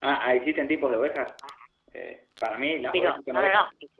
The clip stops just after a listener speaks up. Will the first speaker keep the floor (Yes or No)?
No